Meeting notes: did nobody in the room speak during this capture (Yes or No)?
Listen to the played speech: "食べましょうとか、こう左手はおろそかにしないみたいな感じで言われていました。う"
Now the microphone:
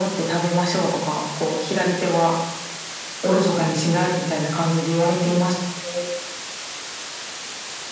Yes